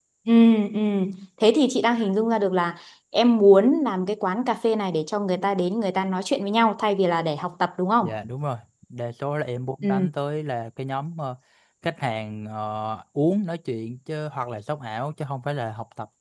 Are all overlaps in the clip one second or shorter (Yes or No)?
Yes